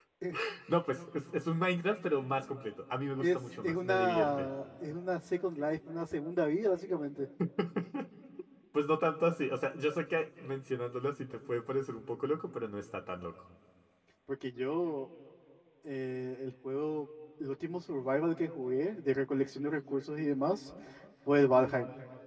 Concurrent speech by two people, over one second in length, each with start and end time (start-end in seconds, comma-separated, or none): 3.2-4.5